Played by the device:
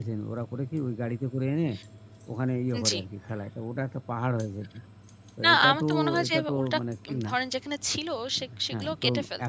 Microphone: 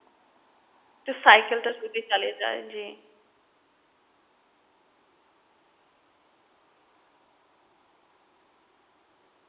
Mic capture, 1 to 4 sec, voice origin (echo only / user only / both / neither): user only